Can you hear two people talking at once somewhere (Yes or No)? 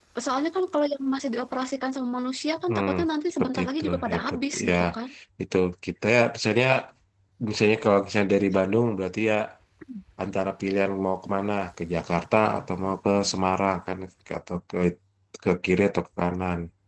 Yes